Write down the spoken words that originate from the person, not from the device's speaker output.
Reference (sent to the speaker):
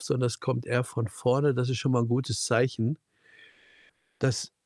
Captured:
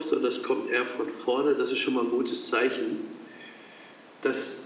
none

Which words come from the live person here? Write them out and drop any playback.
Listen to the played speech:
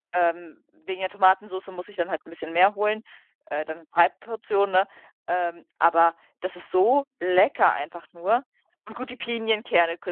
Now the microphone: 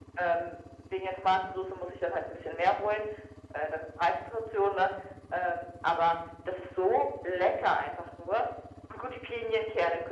none

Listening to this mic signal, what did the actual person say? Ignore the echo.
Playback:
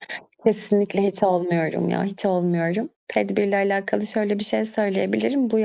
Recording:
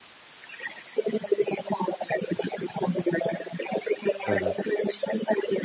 Evet.

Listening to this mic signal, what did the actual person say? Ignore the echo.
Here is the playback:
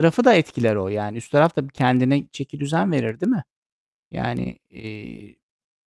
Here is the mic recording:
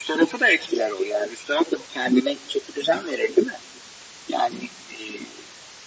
none

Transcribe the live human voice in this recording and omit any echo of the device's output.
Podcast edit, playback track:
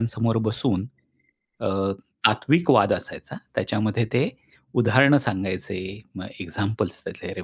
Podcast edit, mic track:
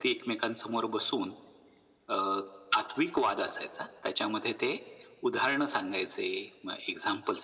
none

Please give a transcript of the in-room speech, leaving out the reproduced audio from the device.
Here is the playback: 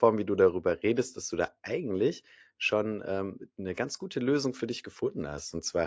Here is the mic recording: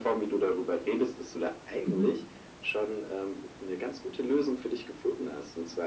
Mhm.

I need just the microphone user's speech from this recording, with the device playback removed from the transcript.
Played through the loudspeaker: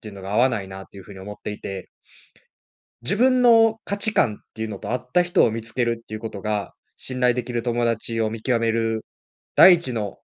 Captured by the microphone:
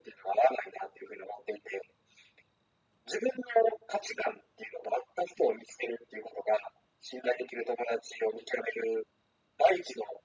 none

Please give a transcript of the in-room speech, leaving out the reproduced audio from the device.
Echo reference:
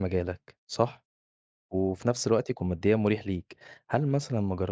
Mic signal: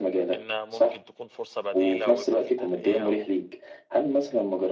إن ممكن تكون فرصة بديلة ويبقى في ترقية و

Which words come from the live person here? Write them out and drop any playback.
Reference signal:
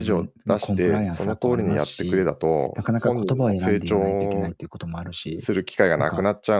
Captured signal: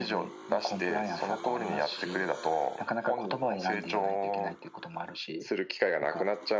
none

